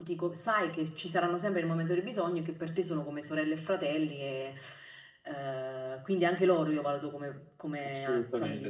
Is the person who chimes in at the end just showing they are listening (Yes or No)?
No